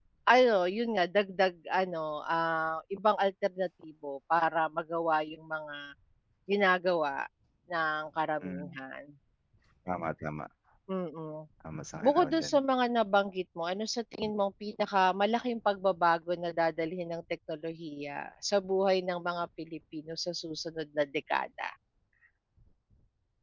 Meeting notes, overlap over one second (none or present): none